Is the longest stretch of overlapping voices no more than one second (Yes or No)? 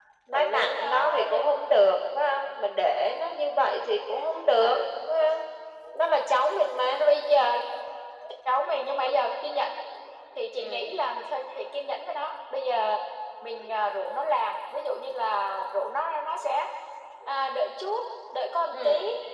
No